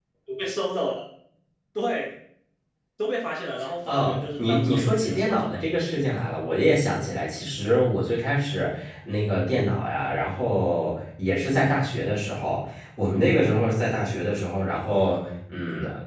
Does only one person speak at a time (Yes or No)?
No